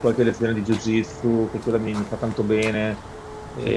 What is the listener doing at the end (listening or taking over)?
taking over